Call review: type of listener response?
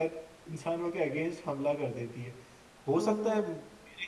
listening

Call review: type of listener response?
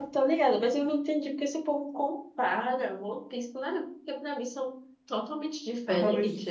taking over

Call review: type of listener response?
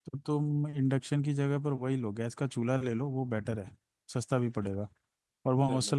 listening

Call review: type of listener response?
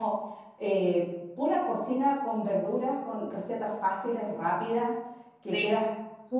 listening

